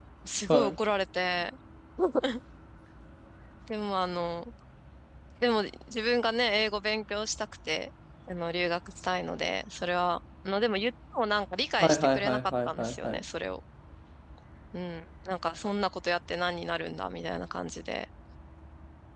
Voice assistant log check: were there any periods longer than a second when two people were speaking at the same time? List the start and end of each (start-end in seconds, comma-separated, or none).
11.8-13.2